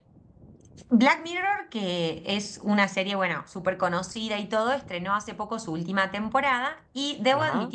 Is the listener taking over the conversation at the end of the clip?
No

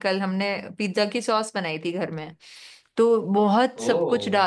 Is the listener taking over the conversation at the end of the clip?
No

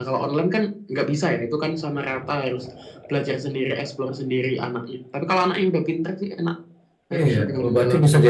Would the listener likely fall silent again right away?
No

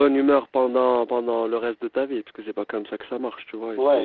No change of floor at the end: No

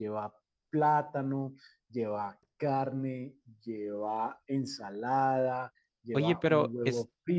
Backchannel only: No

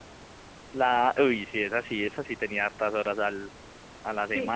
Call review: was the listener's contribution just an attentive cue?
No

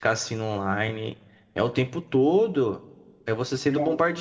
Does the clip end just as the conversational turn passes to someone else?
No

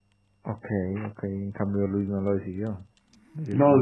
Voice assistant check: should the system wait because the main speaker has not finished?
No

